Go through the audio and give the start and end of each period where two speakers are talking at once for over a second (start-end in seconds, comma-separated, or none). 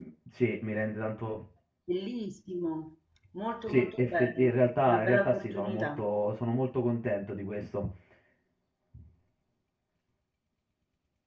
3.7-6.1